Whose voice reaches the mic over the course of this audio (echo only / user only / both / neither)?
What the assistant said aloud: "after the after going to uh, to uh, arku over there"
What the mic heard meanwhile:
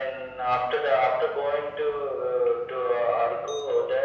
echo only